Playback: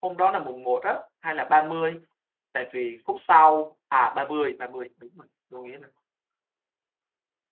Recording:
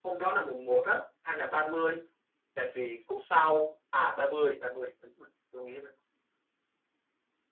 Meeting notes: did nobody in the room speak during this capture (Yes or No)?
Yes